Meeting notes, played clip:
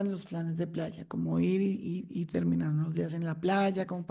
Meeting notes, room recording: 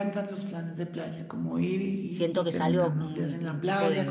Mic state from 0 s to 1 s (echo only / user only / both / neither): echo only